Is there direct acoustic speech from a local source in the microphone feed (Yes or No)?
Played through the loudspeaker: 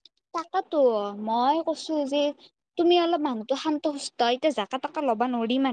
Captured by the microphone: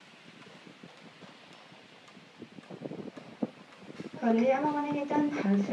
Yes